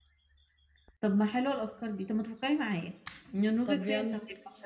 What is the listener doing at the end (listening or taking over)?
listening